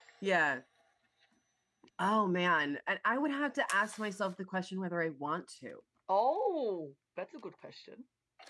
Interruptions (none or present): none